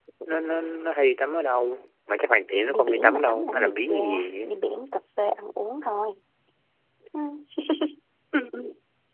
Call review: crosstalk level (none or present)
present